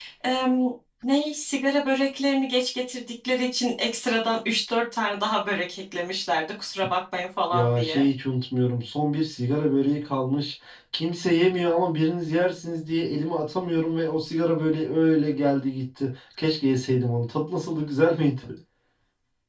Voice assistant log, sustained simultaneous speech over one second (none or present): none